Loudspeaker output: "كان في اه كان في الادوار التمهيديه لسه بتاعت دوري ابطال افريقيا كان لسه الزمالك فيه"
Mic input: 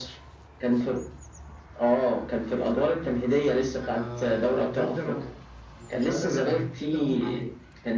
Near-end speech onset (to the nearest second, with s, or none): 4 s